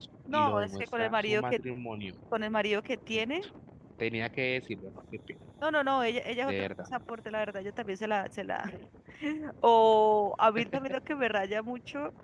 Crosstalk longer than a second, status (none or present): present